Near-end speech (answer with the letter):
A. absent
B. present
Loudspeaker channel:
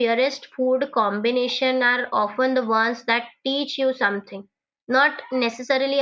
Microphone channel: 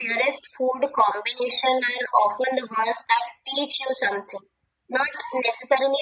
A